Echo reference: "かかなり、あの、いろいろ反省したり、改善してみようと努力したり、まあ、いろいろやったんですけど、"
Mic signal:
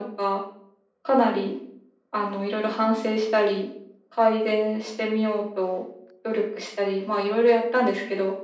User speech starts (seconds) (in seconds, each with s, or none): none